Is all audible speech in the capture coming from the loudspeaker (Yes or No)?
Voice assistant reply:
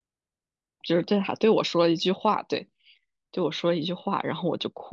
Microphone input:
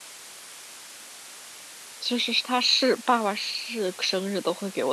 No